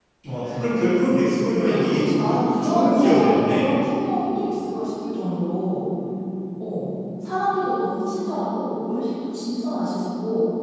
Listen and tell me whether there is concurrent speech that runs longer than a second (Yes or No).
Yes